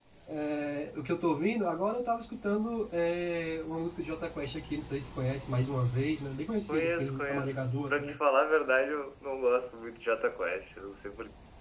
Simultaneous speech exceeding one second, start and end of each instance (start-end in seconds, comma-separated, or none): 6.7-8.2